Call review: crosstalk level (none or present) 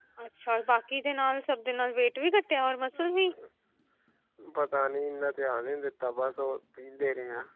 none